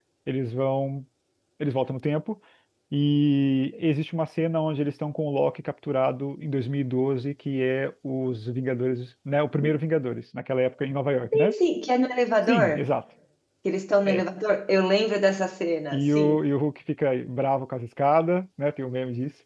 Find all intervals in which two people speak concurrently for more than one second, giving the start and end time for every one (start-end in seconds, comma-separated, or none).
none